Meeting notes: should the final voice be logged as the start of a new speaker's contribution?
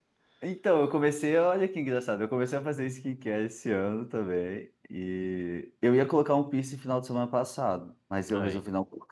No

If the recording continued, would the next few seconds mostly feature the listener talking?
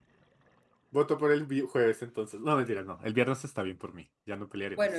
Yes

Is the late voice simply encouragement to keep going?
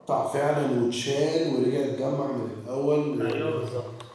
No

